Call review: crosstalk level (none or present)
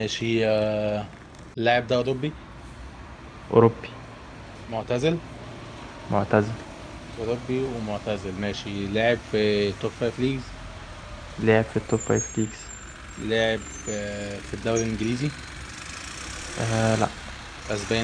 none